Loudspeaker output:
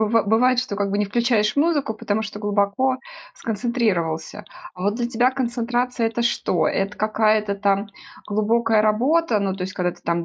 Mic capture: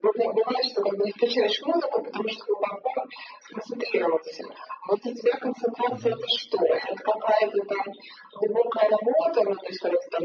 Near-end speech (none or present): present